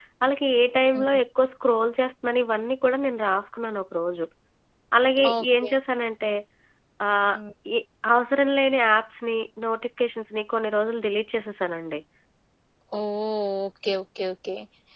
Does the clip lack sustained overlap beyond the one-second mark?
Yes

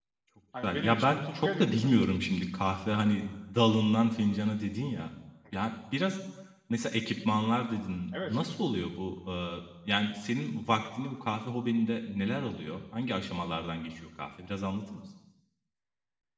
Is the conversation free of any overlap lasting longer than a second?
No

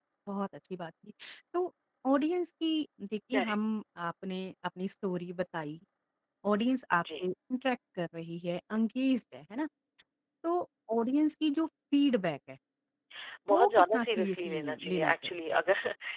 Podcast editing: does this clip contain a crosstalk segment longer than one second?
Yes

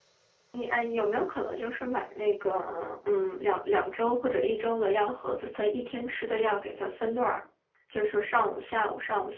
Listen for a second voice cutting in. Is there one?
No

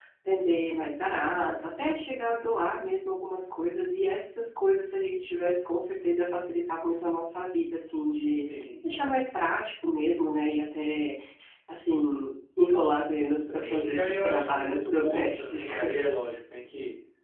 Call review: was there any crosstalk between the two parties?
Yes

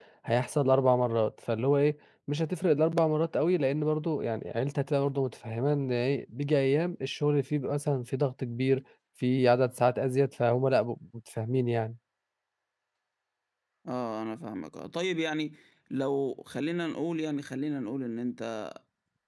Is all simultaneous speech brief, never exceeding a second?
Yes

